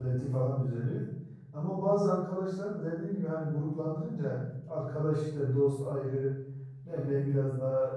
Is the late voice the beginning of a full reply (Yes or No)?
No